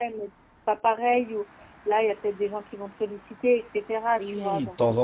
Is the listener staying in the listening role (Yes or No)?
No